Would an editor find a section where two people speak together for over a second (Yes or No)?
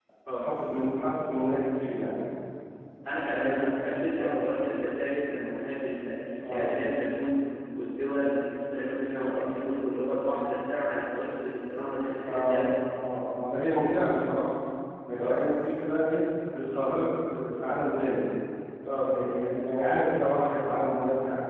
No